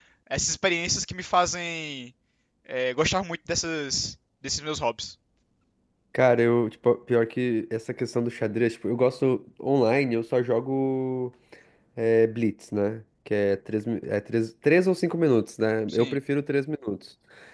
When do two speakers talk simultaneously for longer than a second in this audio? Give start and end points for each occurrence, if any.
none

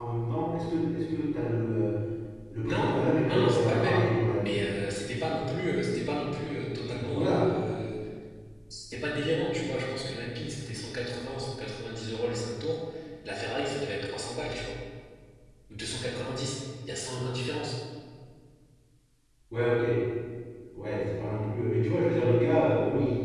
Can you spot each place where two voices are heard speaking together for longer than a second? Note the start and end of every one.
2.7-4.0

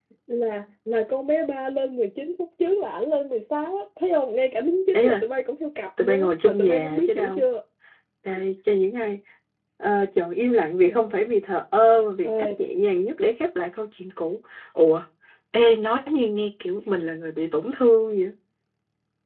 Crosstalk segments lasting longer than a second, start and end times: 6.0-7.4

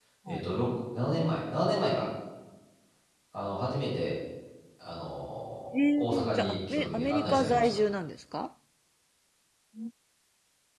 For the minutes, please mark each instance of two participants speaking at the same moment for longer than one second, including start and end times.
5.7-7.8

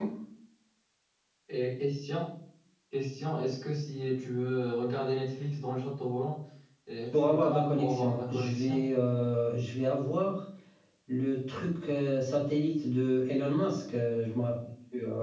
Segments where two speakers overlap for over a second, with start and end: 7.1-8.9

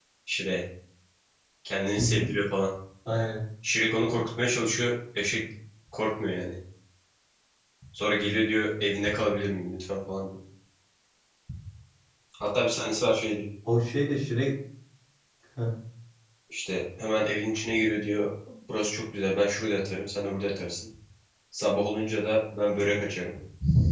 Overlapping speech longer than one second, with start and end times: none

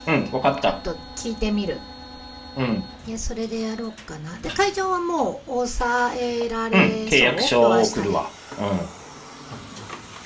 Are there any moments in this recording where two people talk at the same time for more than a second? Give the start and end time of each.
6.7-8.2

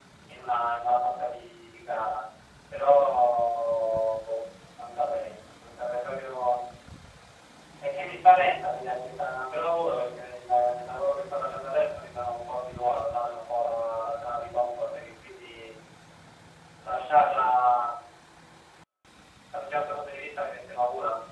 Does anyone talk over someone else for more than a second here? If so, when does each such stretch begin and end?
none

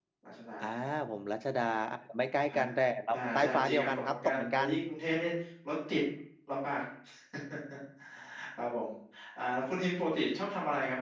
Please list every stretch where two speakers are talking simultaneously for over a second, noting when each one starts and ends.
3.1-4.7

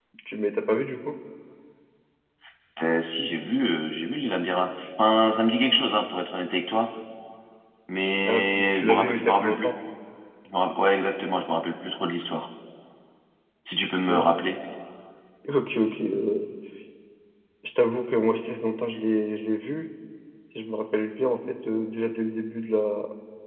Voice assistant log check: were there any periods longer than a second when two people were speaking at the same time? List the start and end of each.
8.2-9.7

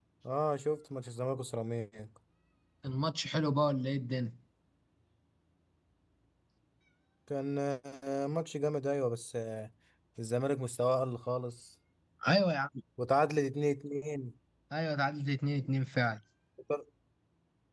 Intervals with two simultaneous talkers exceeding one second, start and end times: none

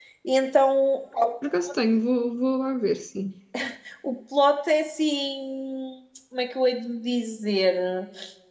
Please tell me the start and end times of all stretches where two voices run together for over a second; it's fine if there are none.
none

